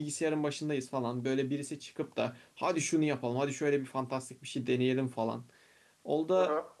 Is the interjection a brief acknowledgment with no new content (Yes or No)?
Yes